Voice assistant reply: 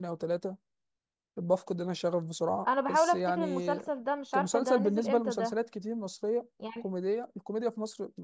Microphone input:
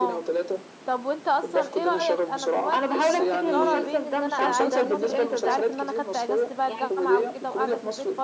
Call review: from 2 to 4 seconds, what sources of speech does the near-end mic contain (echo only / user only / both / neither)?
both